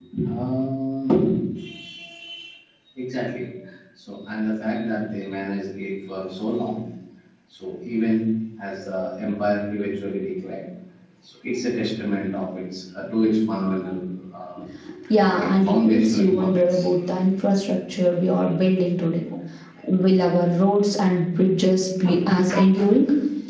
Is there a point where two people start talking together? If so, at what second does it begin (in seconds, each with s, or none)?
15.4 s